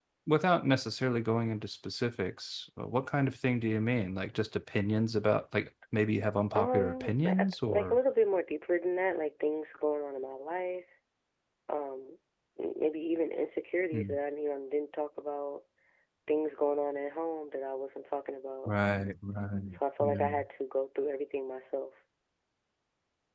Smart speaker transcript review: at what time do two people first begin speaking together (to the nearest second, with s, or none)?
7 s